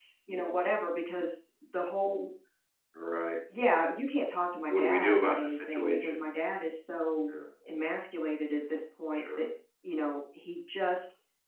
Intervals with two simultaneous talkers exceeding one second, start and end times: 4.7-6.2

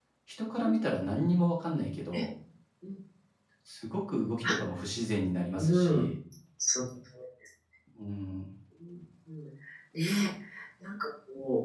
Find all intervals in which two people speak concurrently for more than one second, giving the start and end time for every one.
none

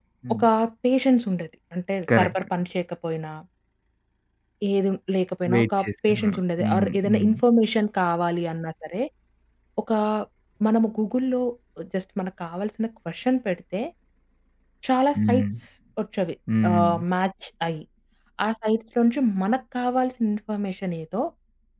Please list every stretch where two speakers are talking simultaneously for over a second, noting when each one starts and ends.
5.5-7.3

